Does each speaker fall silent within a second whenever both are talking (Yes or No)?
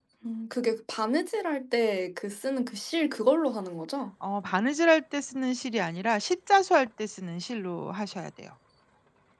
Yes